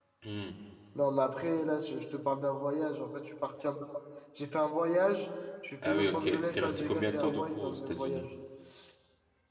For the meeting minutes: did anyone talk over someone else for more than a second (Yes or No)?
Yes